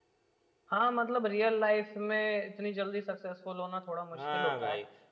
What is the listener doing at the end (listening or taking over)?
taking over